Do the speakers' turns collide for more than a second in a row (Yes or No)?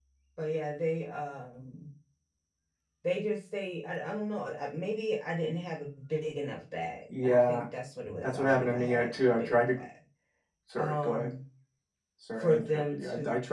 Yes